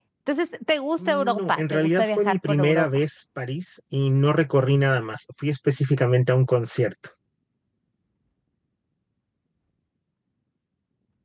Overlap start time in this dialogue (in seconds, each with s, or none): 1.0 s